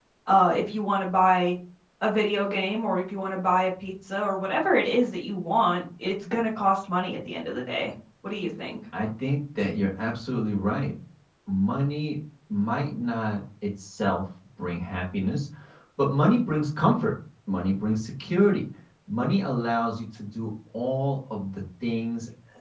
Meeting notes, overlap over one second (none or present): none